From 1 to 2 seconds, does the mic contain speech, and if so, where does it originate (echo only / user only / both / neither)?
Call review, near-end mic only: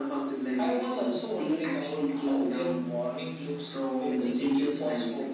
echo only